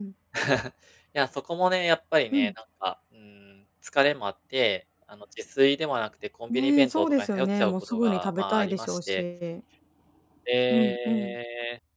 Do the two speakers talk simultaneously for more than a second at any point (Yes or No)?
Yes